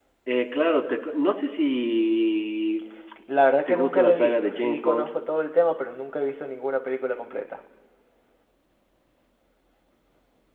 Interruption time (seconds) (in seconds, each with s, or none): 3.7 s